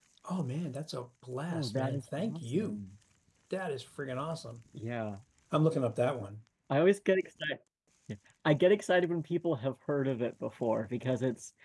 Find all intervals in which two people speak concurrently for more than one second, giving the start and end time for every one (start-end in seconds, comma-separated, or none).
1.5-2.8